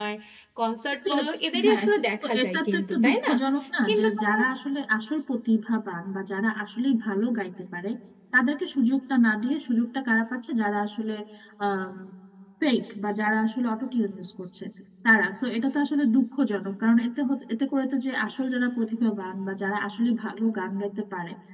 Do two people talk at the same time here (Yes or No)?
Yes